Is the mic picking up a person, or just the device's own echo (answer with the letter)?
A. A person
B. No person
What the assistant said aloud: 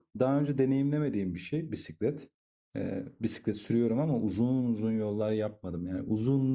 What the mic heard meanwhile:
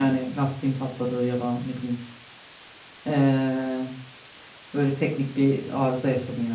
A